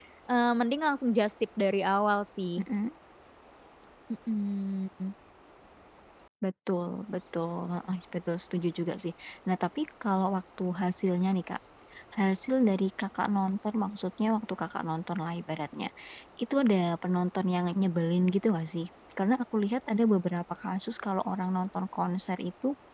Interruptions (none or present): none